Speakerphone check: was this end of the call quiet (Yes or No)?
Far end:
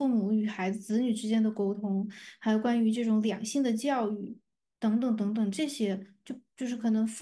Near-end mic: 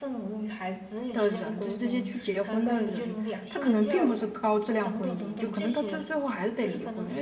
No